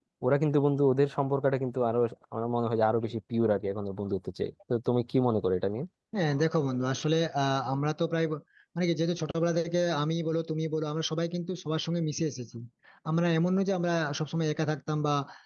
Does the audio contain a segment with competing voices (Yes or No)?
No